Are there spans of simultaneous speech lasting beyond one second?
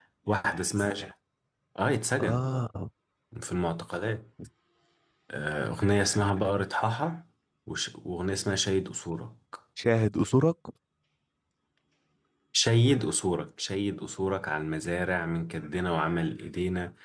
No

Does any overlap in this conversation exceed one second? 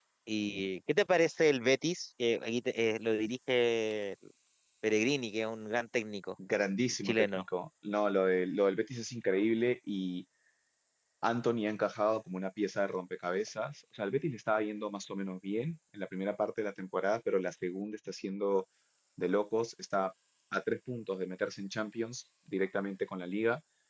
No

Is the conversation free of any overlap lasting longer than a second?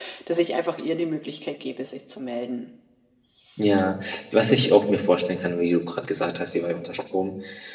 Yes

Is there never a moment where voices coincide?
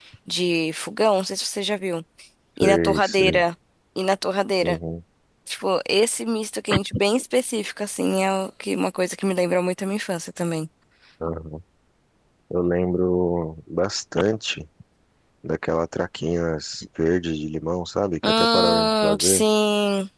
No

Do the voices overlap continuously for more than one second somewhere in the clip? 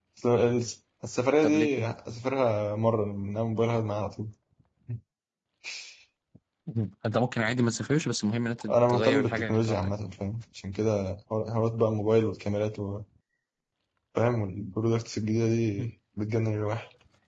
Yes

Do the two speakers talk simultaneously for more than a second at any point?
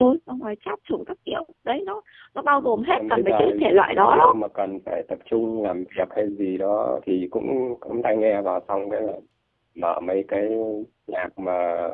Yes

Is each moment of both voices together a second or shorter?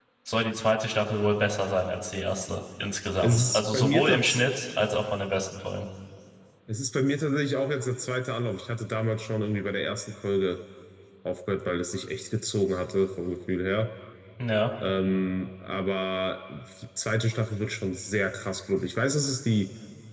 No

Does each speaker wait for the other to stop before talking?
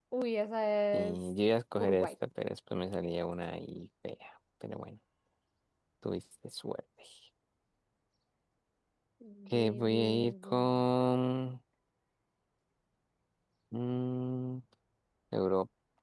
No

